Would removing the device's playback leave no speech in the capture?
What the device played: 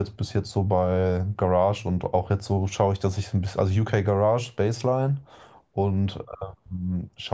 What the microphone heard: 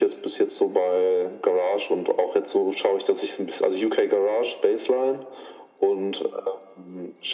Yes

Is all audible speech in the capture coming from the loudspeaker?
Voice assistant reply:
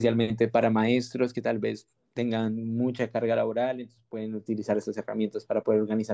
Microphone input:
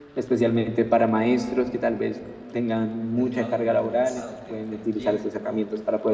No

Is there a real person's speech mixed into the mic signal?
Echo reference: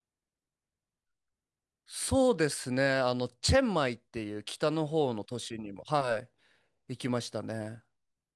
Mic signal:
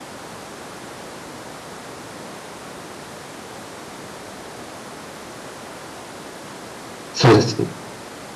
Yes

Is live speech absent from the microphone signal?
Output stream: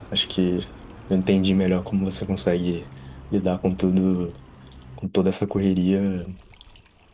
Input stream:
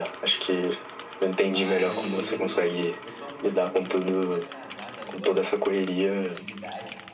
No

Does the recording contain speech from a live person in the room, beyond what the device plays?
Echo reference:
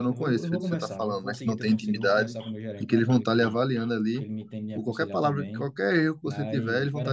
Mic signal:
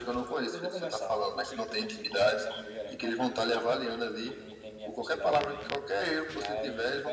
No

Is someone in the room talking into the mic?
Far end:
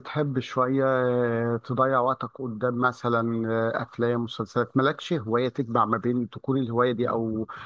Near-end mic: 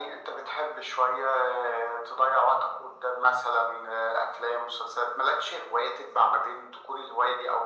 No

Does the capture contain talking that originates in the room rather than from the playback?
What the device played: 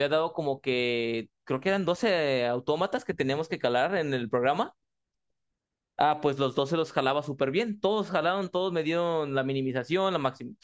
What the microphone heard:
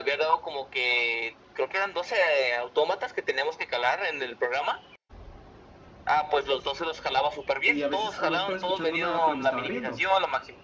Yes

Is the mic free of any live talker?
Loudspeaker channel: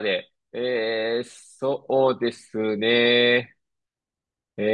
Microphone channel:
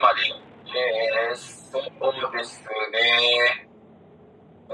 Yes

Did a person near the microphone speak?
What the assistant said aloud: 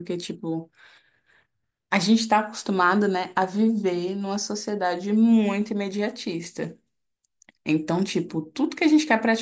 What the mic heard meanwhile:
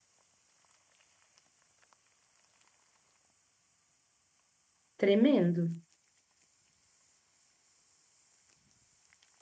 Yes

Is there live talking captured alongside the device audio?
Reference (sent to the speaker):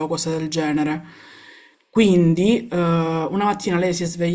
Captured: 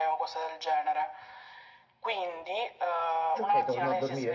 Yes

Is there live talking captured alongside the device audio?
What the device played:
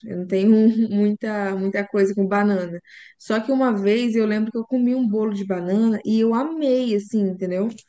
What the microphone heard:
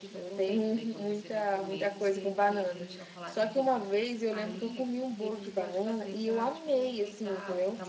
Yes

